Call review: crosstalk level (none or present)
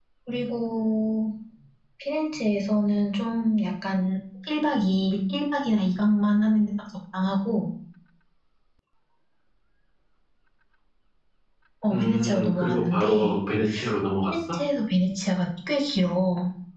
present